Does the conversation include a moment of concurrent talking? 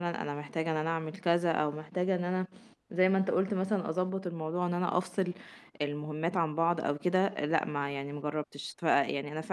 No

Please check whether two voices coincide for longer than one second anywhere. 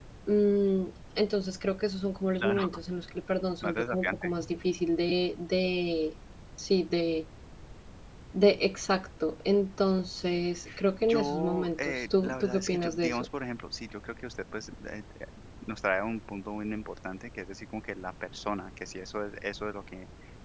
Yes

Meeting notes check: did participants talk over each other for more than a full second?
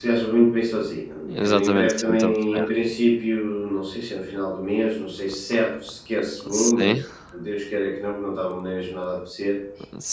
Yes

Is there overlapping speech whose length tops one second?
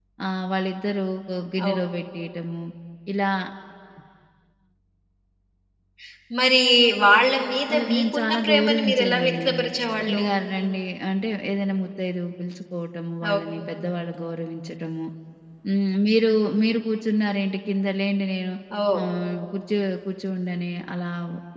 Yes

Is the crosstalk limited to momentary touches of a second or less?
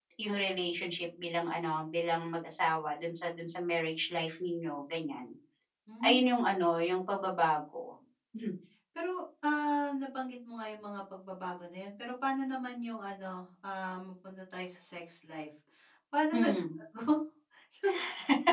Yes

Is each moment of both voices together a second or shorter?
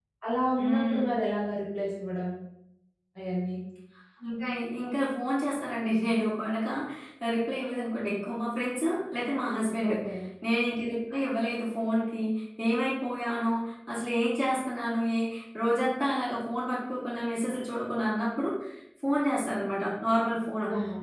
Yes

